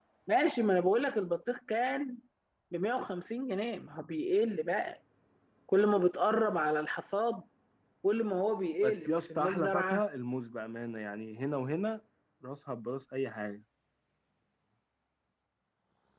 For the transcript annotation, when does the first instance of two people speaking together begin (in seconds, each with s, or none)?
8.8 s